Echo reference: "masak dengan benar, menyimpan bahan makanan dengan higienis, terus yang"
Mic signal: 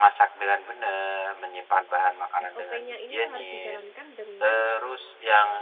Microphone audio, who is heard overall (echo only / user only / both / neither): both